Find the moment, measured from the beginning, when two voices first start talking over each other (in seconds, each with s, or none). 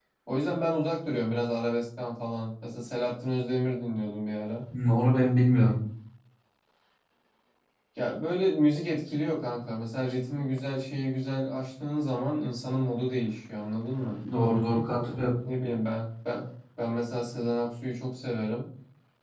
none